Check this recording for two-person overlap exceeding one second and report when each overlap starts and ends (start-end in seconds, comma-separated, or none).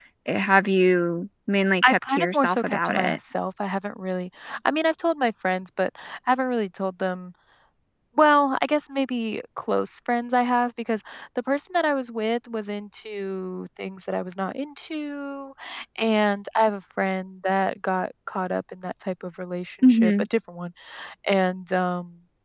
1.8-3.2